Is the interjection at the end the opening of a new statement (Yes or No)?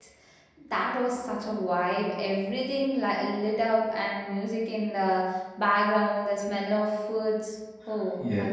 Yes